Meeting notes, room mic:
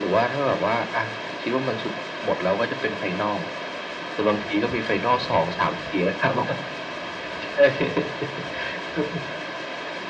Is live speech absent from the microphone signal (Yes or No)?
Yes